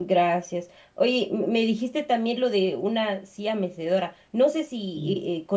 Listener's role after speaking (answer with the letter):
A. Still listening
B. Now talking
A